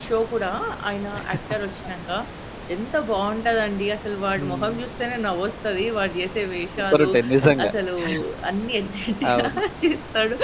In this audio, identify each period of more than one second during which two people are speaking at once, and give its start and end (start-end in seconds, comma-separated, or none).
none